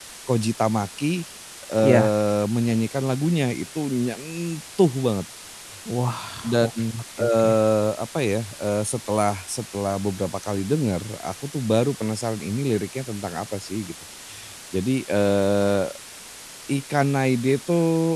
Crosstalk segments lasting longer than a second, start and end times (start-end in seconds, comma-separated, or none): none